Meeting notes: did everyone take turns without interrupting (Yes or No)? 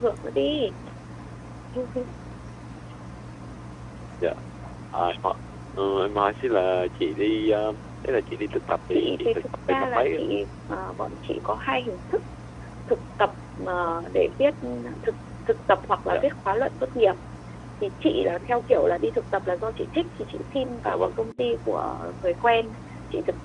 No